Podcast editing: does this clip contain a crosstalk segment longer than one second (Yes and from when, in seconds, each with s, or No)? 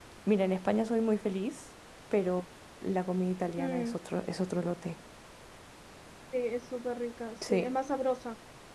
No